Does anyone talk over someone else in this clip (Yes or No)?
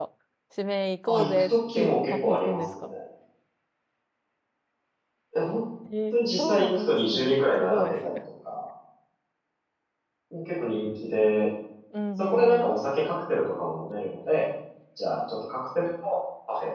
Yes